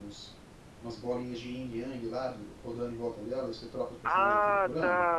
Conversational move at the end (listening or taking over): taking over